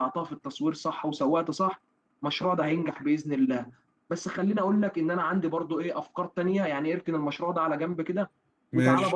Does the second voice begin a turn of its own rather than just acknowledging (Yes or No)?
No